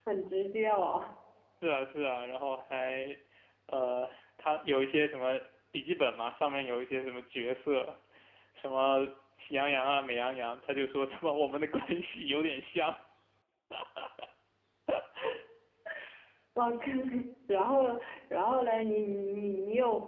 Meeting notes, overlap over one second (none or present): none